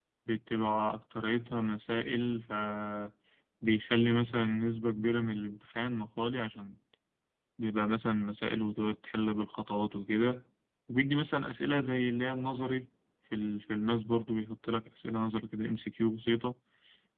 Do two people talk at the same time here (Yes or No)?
No